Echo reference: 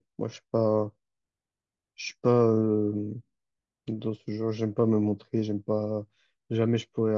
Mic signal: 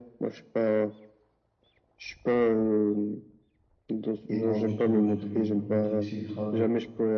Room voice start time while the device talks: 4.3 s

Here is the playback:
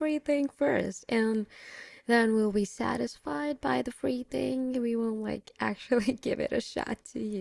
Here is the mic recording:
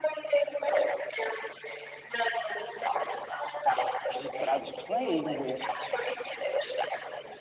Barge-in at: 4.1 s

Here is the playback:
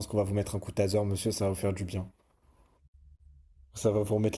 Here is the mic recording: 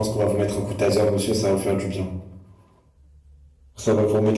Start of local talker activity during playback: none

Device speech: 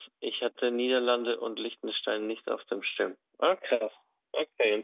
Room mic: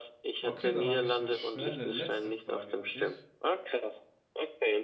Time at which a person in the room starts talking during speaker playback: 0.4 s

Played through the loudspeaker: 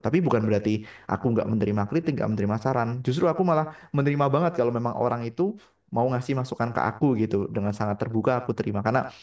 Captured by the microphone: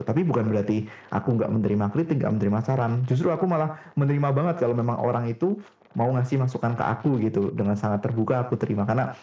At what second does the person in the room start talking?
none

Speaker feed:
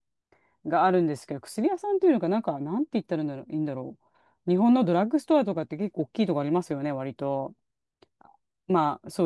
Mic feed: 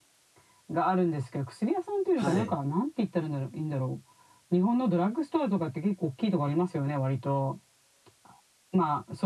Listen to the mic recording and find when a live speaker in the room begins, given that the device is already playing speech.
2.1 s

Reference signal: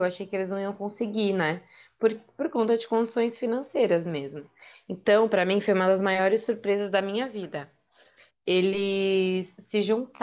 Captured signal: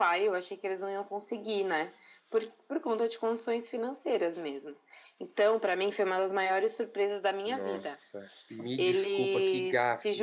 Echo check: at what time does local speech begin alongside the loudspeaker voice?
7.4 s

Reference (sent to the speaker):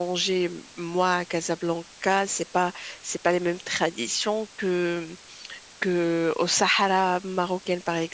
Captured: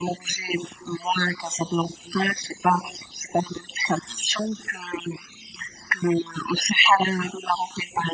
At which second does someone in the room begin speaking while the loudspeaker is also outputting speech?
none

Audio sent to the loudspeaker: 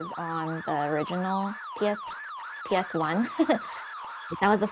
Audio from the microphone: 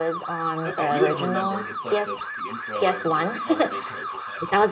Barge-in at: 0.7 s

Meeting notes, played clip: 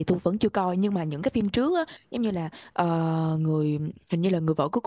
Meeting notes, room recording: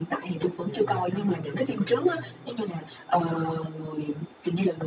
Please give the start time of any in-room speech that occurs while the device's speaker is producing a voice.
0.6 s

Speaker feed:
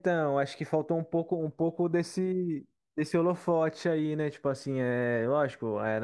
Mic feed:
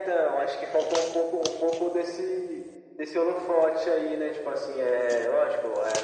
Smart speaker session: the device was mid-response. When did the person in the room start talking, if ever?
none

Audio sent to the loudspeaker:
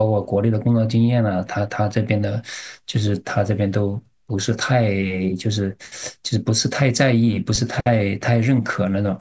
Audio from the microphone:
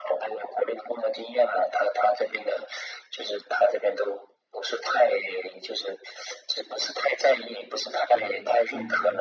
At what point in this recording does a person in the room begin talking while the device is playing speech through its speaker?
8.1 s

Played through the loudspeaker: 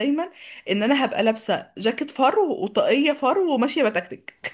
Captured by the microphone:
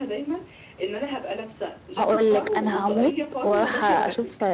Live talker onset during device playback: 2.0 s

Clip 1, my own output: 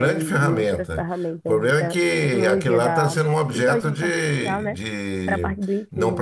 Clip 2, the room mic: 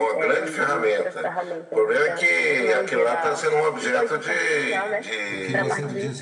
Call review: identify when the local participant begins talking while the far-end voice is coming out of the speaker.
5.2 s

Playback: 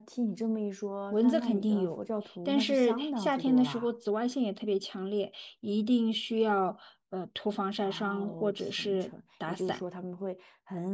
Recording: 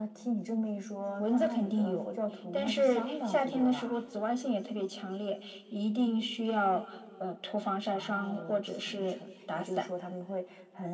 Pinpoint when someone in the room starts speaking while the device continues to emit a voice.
none

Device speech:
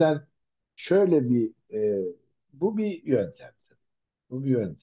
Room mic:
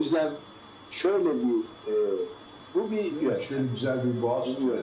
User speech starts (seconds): 3.1 s

